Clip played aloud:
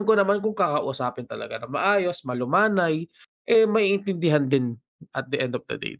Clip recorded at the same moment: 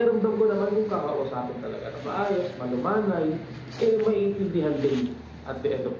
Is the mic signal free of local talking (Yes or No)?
Yes